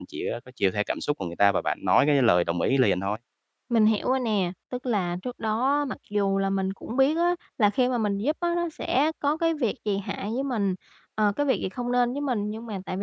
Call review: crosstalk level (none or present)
none